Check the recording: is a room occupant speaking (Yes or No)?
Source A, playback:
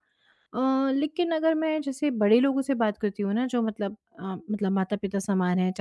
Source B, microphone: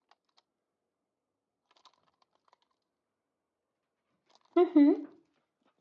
Yes